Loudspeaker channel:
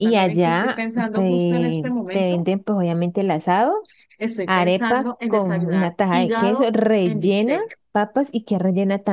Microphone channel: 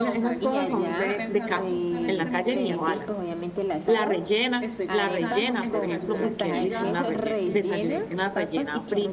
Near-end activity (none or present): present